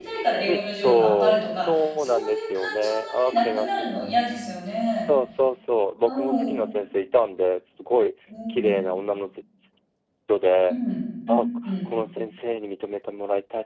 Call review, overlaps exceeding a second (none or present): present